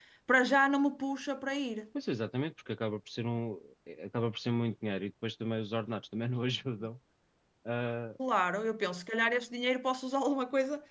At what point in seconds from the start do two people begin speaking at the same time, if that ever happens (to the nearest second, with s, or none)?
none